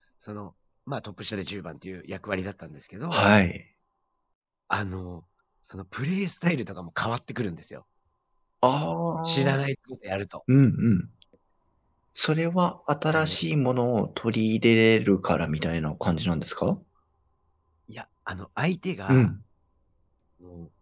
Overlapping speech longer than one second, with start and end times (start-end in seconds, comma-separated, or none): none